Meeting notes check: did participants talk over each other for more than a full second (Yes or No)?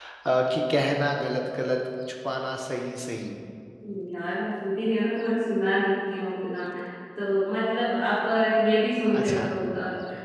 No